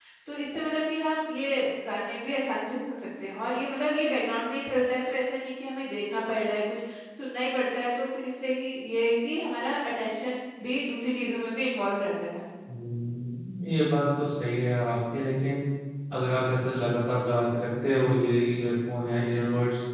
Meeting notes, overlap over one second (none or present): none